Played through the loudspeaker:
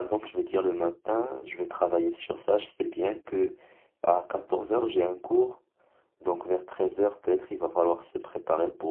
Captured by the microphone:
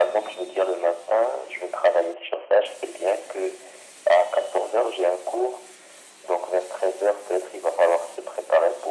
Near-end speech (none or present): none